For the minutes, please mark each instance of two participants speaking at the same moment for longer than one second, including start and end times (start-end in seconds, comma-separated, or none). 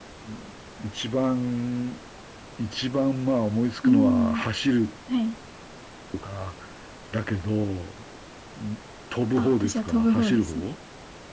9.4-10.7